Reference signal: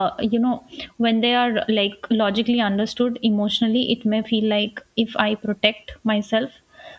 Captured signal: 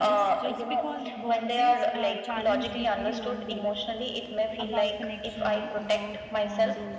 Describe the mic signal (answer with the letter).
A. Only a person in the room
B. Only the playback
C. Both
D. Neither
C